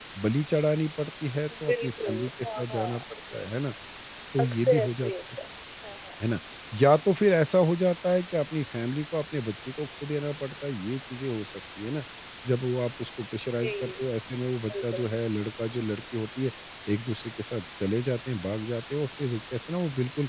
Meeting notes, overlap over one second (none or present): present